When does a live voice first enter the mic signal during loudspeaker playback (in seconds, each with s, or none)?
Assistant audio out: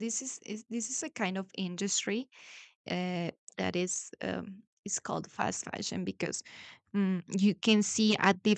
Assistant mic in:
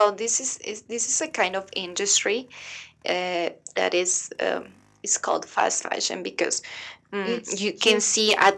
7.2 s